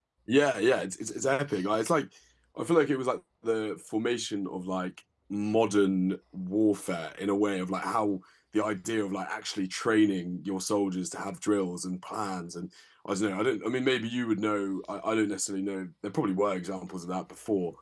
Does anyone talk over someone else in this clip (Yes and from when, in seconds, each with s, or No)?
No